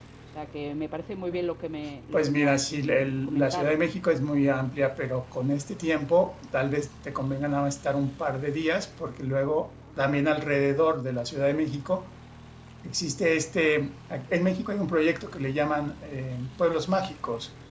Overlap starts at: 2 s

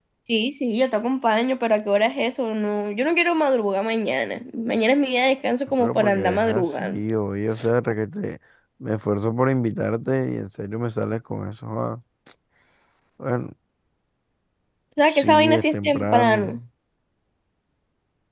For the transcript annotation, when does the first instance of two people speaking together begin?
6 s

